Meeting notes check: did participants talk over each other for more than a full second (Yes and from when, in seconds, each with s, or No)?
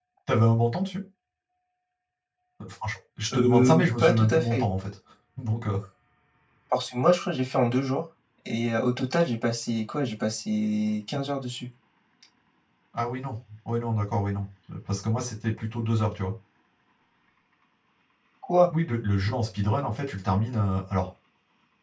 Yes, from 3.3 s